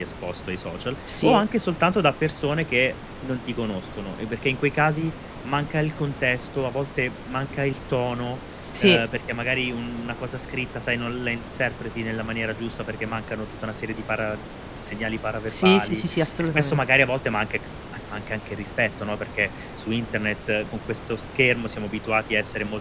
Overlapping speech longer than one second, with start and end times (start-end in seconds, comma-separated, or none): 15.5-16.8